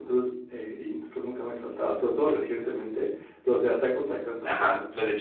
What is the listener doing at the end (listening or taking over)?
taking over